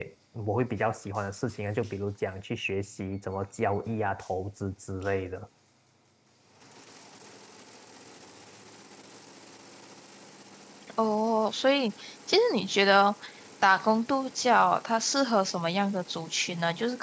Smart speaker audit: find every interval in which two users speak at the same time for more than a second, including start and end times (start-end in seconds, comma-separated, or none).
none